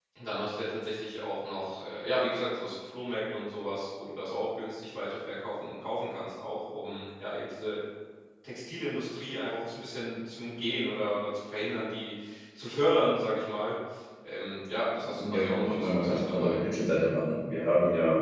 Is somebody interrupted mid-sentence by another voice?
Yes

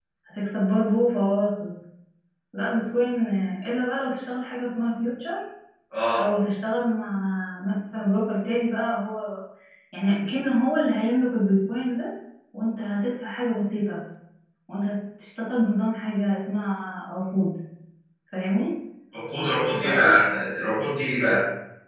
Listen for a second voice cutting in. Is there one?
No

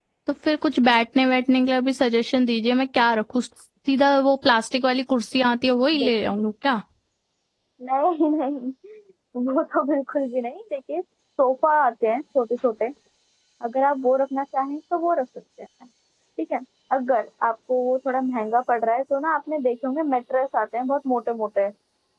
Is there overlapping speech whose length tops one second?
No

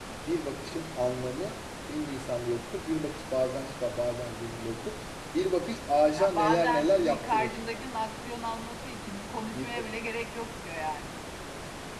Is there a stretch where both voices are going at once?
Yes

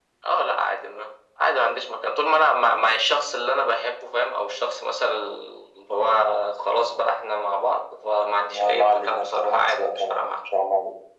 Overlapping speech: Yes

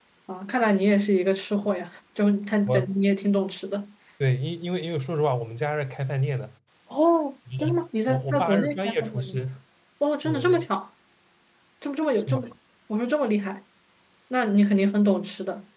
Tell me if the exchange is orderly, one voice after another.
No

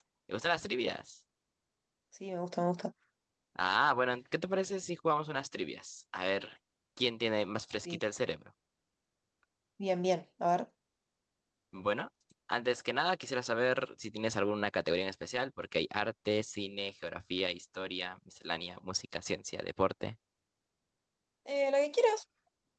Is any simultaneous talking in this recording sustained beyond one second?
No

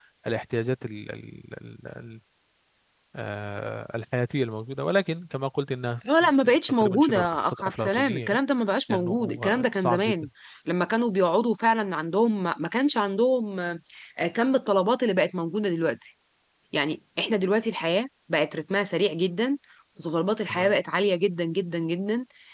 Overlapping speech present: Yes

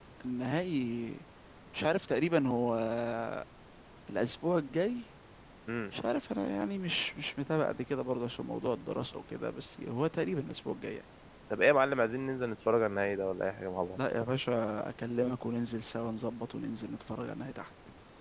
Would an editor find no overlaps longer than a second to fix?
Yes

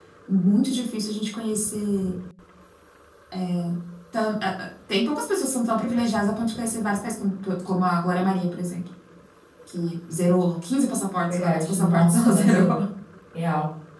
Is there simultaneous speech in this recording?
Yes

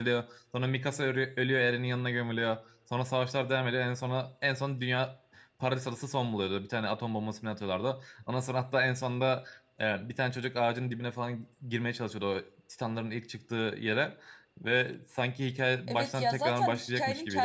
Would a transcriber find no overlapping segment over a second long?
No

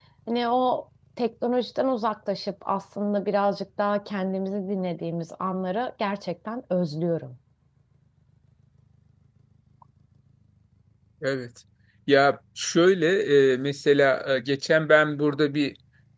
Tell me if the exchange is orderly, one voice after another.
Yes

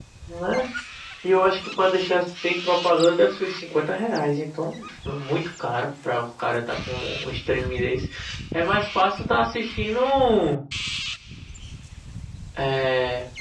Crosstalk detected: No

